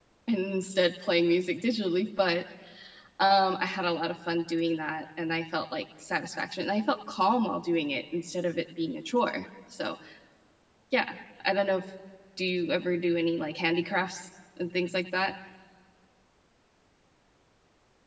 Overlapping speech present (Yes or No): No